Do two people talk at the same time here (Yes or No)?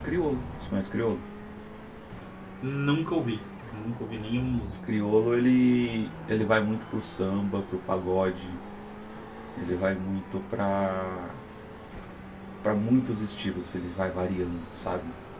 No